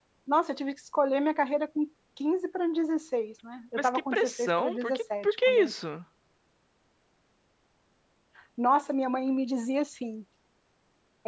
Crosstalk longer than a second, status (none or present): present